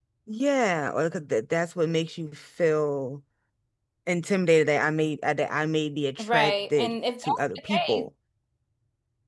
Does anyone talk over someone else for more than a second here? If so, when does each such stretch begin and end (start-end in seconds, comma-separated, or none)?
6.2-8.1